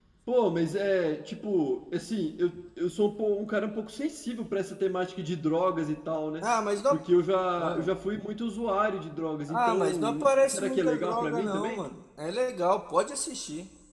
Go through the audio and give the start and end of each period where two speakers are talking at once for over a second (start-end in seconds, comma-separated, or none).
9.5-11.8